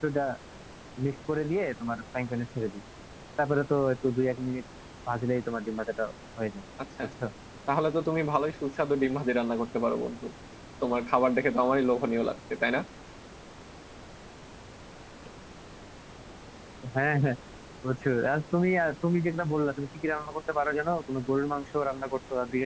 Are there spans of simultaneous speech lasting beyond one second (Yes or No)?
No